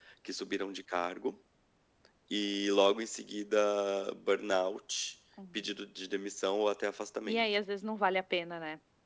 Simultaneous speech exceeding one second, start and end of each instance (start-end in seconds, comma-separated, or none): none